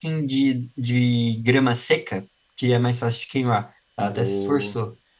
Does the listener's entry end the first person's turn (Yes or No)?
Yes